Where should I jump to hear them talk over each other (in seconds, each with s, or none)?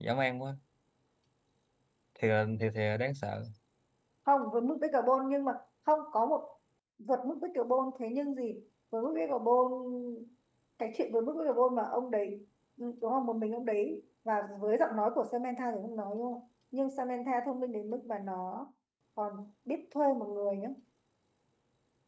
none